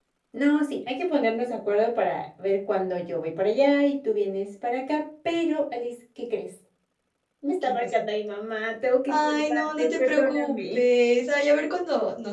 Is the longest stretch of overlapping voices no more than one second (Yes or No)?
No